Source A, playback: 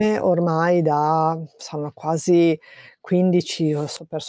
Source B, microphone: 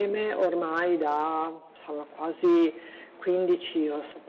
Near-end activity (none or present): none